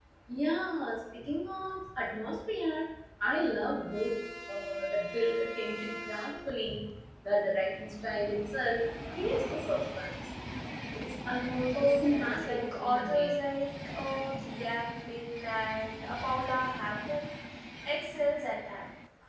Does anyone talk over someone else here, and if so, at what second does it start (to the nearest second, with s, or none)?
12 s